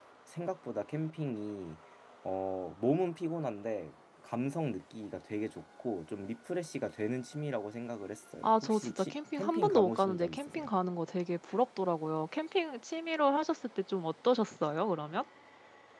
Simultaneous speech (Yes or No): Yes